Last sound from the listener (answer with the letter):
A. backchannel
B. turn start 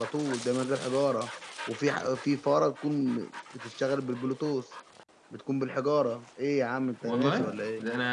B